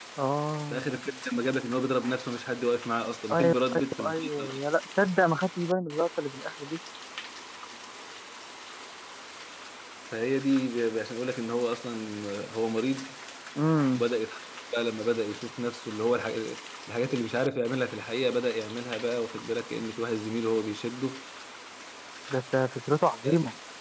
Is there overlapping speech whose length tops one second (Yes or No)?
Yes